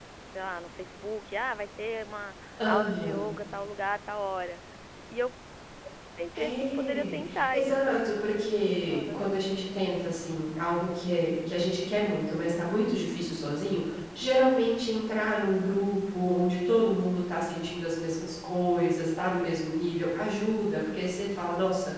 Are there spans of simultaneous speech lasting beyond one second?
Yes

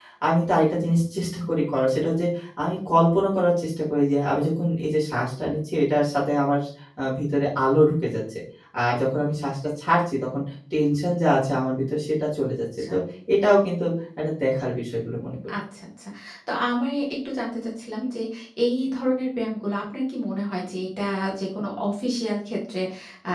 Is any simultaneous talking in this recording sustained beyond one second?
No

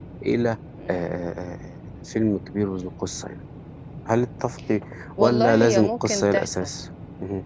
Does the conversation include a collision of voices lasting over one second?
Yes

